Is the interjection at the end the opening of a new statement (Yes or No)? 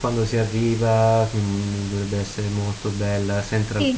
Yes